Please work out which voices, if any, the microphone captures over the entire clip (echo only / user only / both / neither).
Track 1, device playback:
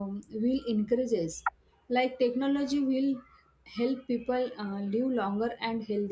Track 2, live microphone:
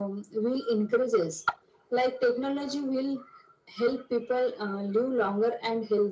echo only